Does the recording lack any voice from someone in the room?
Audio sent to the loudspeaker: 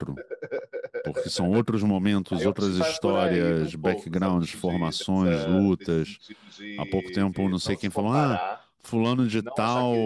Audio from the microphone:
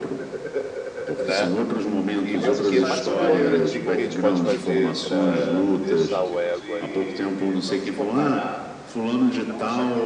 No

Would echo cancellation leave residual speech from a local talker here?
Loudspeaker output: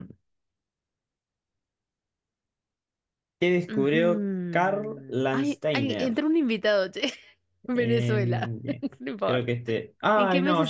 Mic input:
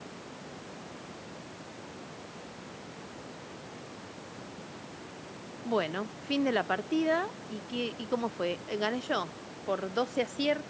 Yes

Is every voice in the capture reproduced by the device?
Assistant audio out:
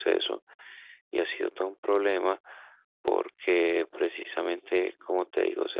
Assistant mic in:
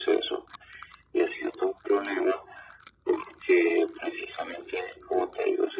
Yes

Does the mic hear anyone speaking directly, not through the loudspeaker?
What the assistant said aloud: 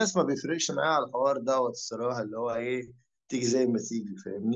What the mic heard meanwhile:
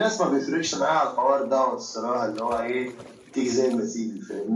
No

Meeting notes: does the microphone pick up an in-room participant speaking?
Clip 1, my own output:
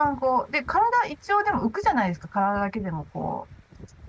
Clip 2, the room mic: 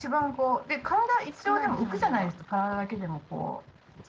Yes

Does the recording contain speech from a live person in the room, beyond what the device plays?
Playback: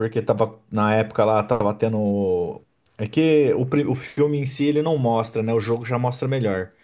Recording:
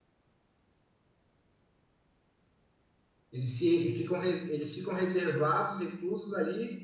Yes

